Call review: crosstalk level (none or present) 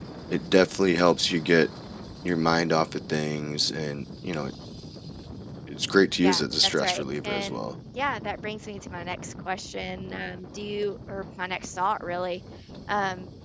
present